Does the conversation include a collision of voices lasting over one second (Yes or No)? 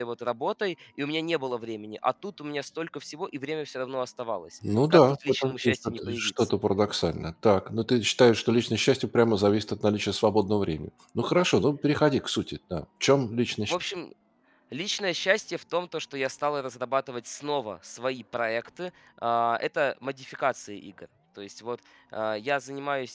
Yes